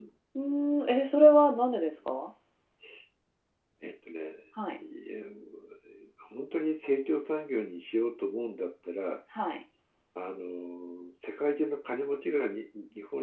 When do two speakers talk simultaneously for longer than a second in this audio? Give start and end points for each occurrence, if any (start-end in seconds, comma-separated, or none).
none